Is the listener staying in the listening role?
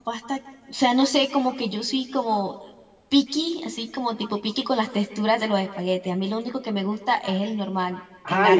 No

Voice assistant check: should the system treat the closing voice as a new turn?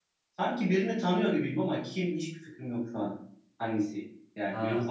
Yes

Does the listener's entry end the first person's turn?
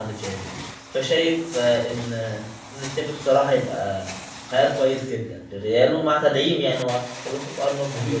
Yes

